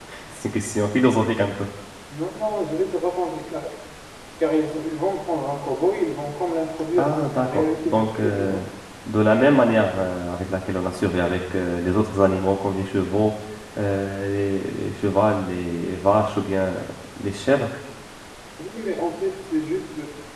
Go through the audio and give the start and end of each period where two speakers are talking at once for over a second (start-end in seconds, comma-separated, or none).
7.0-8.6